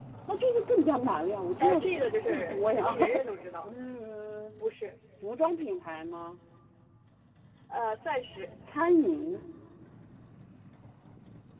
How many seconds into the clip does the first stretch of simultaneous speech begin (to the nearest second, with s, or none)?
2 s